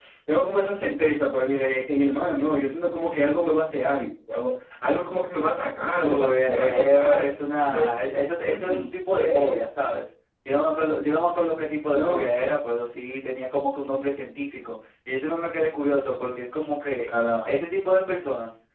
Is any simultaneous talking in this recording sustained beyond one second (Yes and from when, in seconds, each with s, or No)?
Yes, from 6.0 s